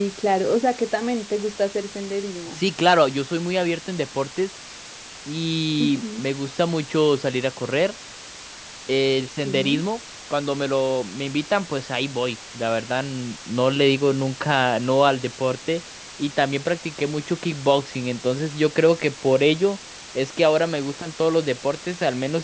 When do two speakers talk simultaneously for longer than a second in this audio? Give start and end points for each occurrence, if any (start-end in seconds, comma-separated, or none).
none